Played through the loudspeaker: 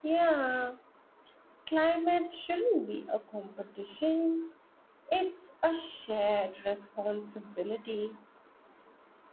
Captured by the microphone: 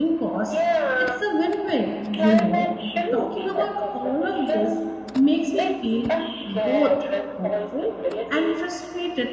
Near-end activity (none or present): present